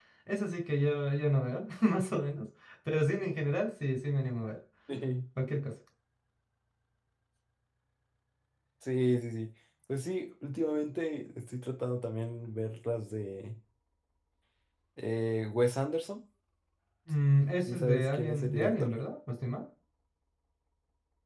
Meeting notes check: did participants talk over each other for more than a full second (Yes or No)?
Yes